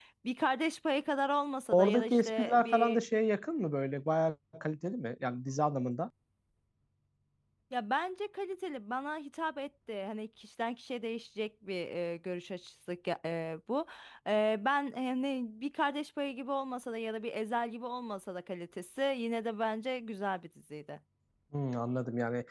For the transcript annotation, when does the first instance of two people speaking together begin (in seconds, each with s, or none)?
1.7 s